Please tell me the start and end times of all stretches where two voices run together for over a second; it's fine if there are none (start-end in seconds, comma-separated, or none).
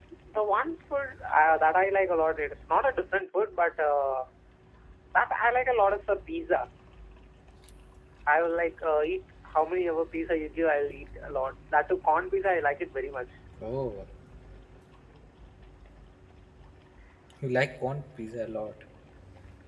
none